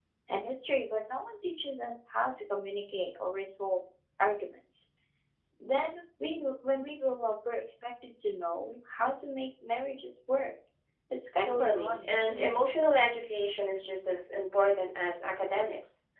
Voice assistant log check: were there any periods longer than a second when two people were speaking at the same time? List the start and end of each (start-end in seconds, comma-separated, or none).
11.4-12.7